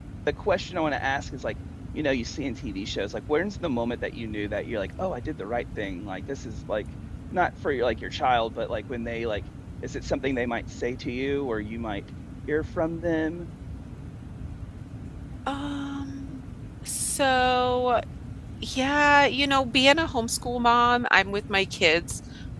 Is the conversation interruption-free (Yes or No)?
Yes